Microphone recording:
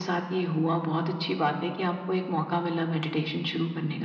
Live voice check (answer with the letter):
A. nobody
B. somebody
A